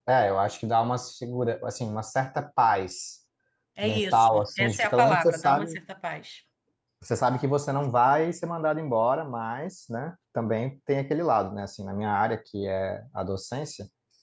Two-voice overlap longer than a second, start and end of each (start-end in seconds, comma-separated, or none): 3.8-5.8